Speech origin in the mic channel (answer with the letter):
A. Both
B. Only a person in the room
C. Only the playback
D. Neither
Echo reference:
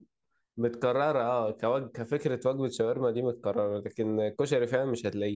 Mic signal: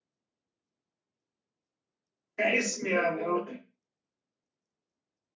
B